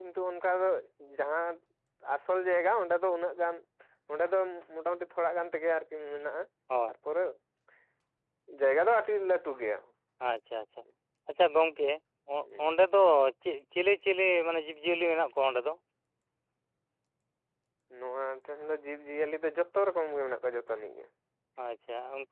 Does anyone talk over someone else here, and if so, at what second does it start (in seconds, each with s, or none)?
none